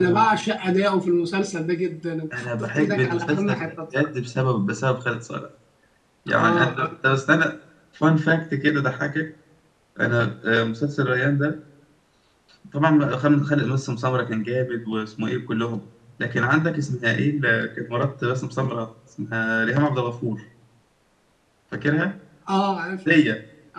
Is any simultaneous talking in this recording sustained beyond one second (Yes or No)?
Yes